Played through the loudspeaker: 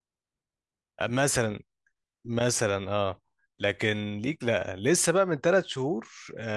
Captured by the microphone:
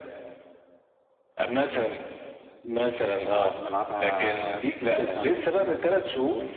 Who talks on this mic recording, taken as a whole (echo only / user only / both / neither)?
both